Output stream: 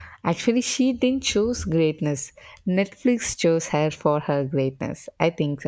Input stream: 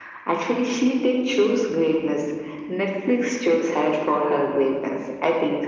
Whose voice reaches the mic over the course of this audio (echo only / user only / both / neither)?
echo only